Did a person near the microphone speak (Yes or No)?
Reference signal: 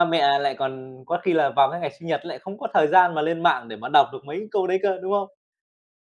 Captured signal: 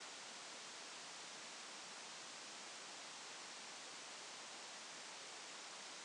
No